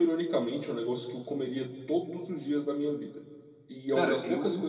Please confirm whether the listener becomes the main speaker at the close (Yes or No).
No